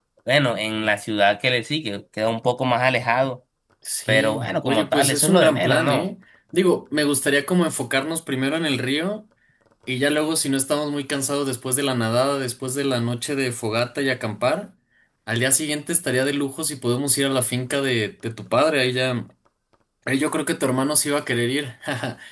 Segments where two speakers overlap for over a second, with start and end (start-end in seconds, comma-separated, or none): 4.1-6.1